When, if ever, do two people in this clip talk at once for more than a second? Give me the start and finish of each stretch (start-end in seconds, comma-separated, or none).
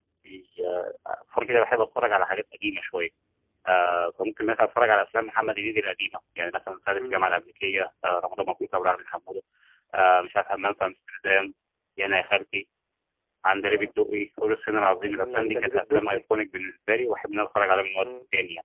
14.7-16.2